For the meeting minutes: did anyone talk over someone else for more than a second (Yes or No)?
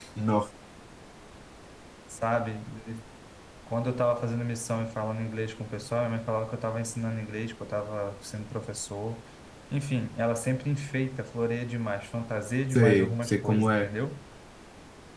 Yes